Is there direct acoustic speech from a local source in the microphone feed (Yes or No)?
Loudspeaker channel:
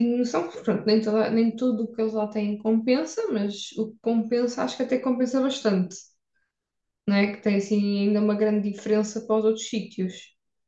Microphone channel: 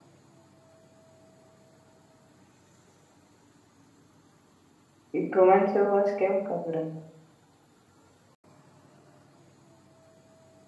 Yes